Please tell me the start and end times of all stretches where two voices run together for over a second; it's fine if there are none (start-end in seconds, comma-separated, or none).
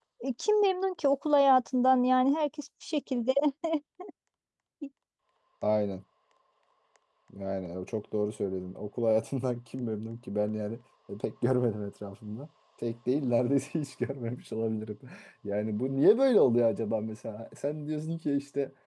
none